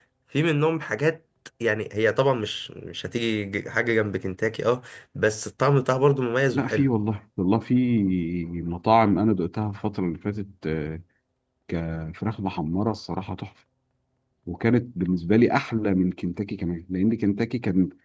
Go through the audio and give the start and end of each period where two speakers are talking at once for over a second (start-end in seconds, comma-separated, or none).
none